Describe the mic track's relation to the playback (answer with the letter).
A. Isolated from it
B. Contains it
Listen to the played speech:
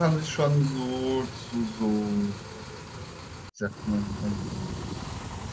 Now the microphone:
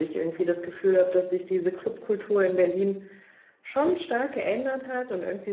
A